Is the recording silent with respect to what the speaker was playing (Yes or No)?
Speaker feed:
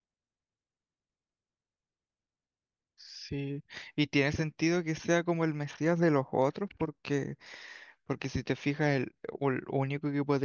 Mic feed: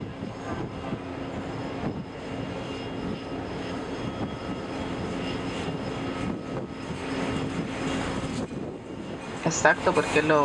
Yes